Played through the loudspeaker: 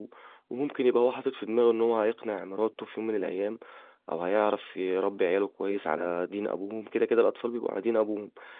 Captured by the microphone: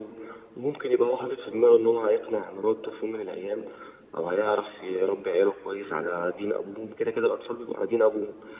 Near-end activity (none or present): none